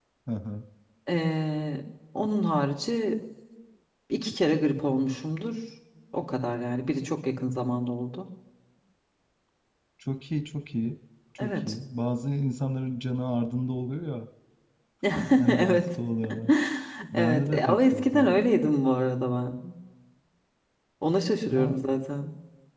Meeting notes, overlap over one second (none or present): present